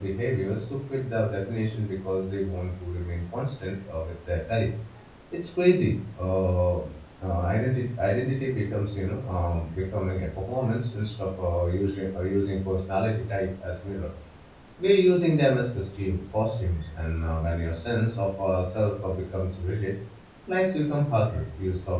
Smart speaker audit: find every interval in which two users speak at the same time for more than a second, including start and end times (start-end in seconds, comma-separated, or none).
none